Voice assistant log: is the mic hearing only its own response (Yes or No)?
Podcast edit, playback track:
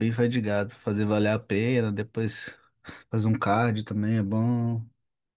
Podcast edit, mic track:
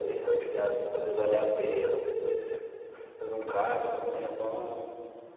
Yes